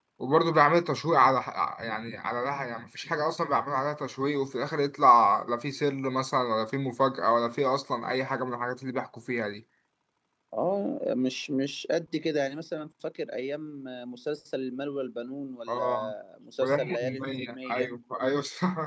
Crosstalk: present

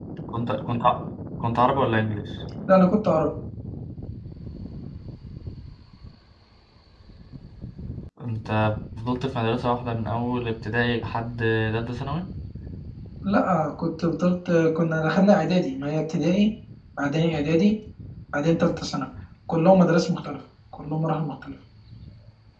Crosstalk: none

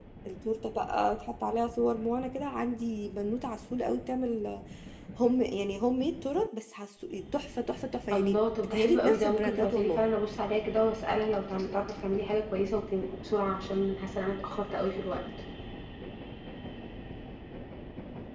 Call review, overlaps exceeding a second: present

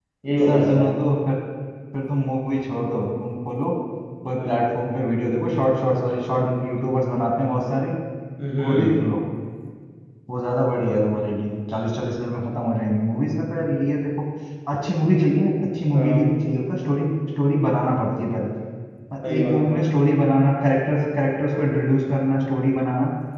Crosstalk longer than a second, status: none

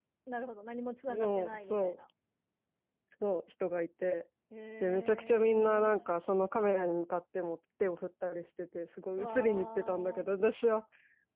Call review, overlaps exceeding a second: present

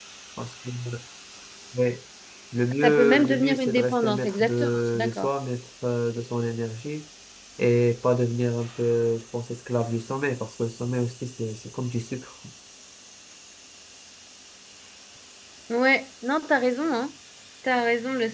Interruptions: present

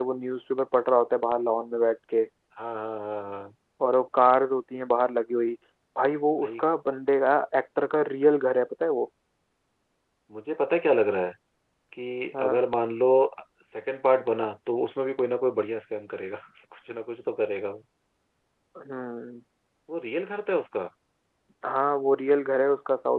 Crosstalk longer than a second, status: none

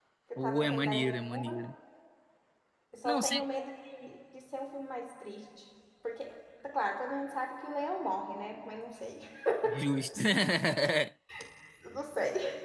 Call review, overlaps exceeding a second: present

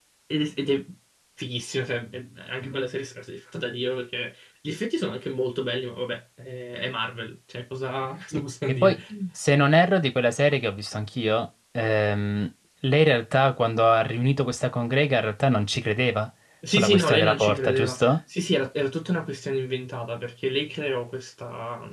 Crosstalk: present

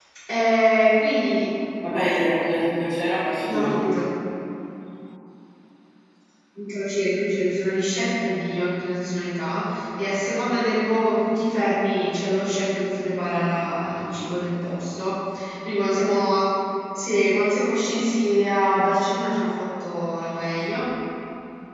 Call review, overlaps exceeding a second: none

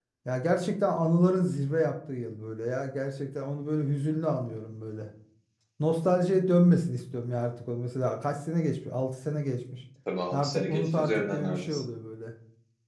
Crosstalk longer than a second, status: present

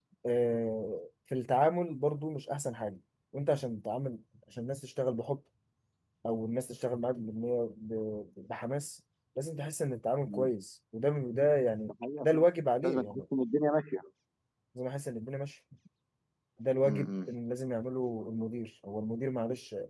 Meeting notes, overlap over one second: none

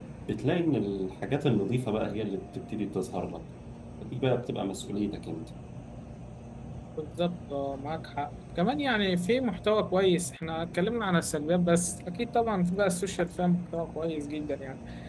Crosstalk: none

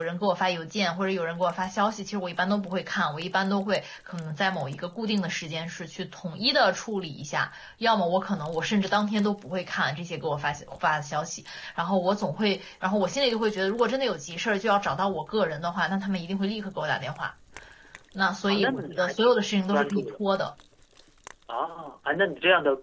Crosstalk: present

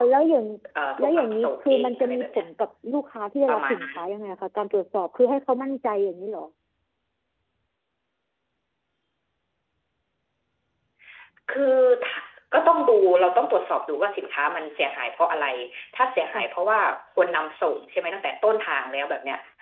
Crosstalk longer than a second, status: present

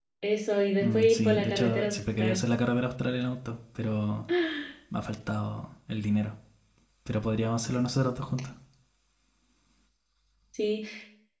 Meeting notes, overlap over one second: present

